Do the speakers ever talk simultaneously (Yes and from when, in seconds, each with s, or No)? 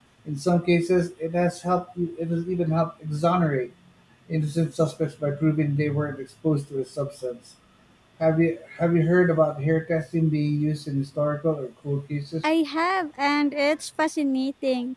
No